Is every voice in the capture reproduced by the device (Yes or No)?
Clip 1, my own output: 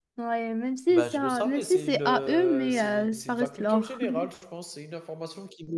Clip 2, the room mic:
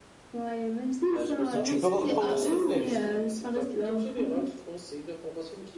No